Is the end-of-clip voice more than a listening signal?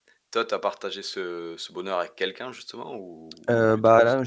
Yes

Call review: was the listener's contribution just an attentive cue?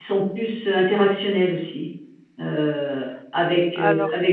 Yes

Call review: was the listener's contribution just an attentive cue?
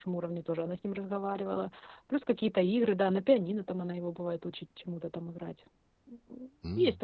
No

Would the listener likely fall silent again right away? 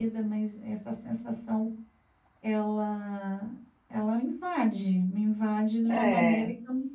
Yes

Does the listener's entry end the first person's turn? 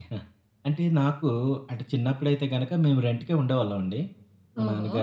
No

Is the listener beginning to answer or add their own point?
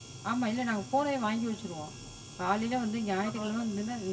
No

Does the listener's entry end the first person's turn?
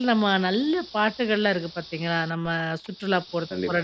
No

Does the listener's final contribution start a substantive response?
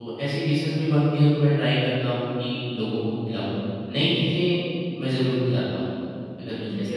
Yes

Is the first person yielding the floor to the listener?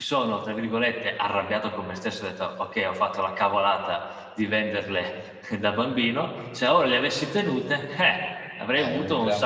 Yes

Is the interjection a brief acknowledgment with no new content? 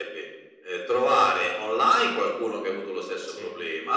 Yes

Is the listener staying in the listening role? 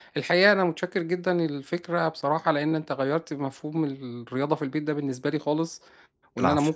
Yes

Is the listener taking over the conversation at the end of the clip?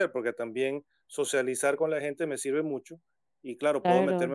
No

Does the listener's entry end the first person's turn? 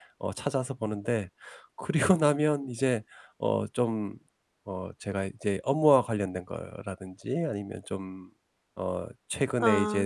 No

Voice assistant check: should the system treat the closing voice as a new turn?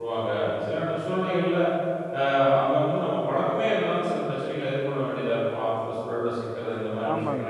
Yes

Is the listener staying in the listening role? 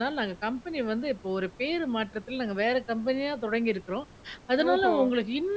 Yes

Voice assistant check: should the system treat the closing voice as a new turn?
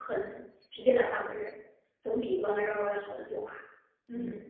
Yes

